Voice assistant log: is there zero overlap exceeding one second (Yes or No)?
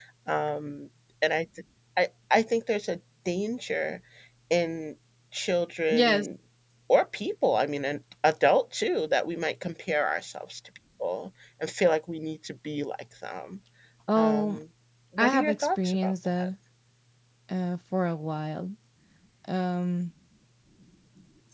No